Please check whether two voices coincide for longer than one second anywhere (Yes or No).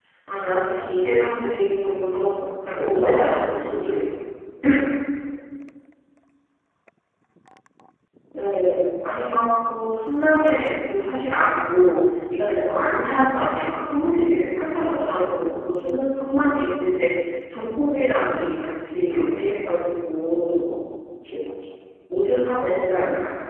Yes